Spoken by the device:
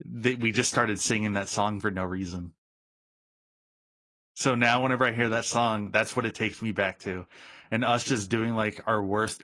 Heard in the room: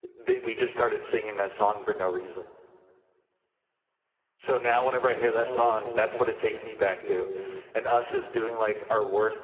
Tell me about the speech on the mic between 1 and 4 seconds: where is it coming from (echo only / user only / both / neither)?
echo only